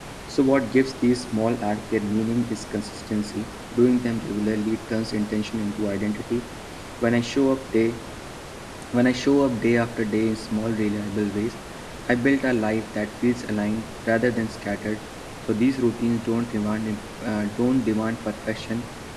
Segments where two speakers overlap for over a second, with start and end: none

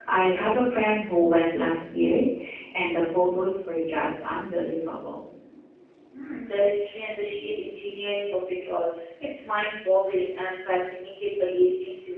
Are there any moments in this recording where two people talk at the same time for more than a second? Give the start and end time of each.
none

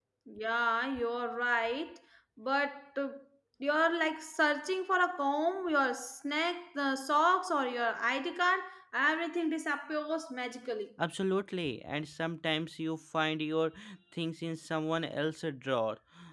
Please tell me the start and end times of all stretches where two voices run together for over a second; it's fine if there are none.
none

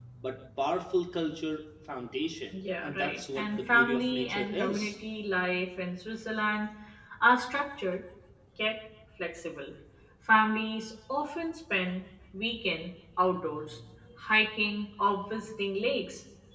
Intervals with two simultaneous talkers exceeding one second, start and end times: 2.8-4.8

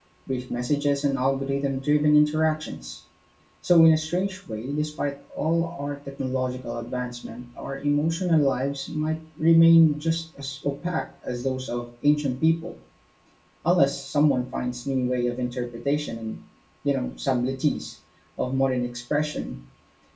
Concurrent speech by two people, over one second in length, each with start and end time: none

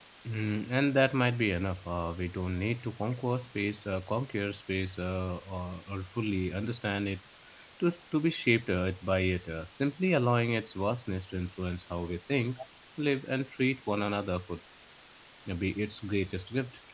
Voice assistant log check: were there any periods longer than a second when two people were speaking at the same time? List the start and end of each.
none

